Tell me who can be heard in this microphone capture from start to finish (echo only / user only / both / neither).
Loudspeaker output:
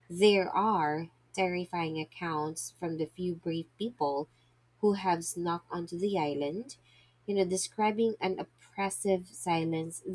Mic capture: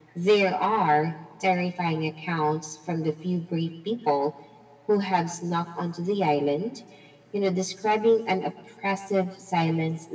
echo only